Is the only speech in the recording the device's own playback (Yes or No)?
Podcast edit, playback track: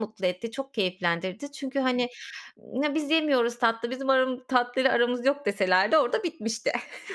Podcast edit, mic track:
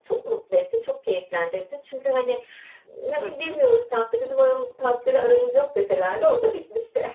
No